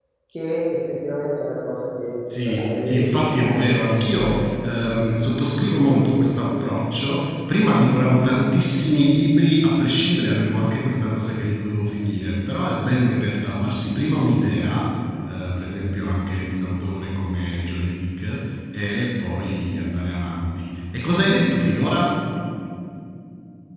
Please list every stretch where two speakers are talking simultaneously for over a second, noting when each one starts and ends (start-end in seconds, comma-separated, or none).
2.5-4.3